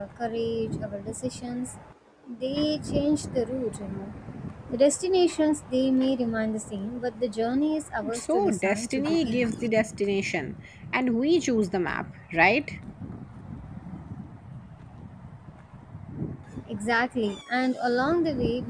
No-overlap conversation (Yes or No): No